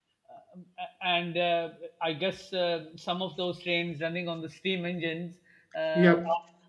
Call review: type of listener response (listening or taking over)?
listening